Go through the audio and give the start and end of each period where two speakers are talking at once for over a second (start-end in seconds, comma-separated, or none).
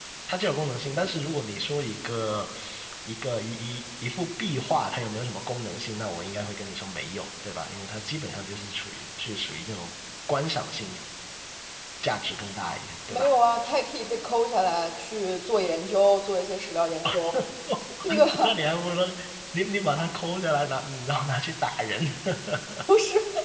none